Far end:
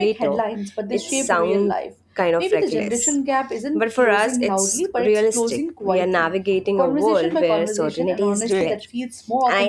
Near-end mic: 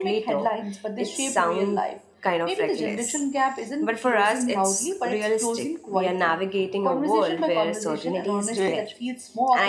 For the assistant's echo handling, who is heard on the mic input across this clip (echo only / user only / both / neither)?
echo only